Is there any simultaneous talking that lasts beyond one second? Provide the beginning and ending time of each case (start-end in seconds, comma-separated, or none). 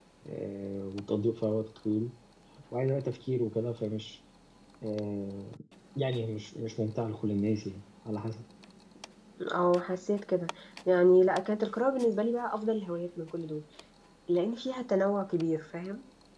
none